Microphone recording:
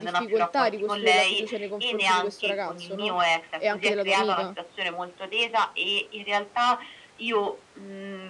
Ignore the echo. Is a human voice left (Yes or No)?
Yes